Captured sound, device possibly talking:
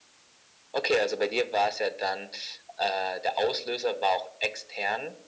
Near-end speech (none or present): none